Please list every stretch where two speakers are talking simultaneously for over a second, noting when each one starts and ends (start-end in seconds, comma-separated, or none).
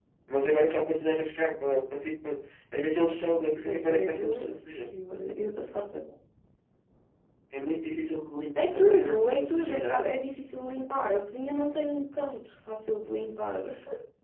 3.6-4.9, 8.6-10.2